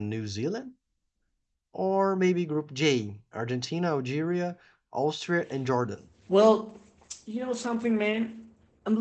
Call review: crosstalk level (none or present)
none